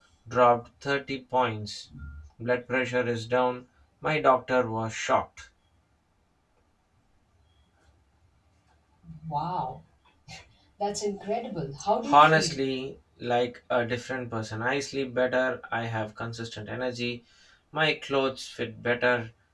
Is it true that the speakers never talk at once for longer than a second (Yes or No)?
Yes